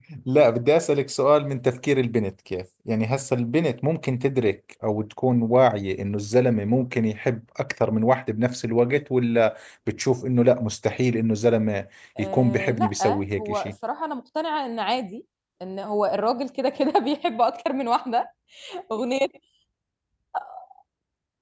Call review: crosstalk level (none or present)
present